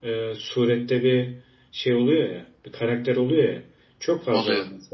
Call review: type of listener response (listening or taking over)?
listening